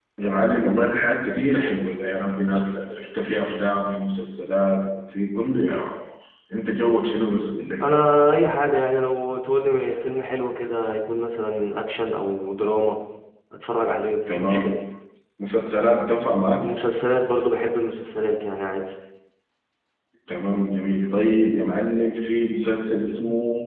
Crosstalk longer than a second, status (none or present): none